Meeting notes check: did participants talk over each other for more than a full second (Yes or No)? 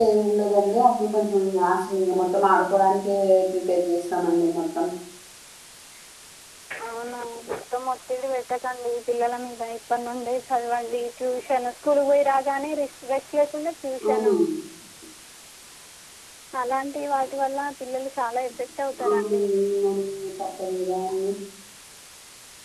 No